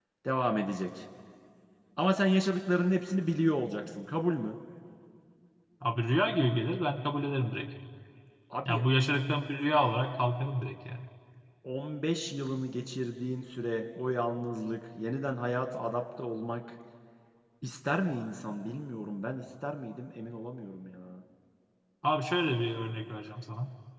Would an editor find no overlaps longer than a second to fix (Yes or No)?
Yes